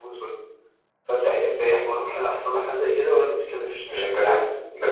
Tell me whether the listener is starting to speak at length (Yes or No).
Yes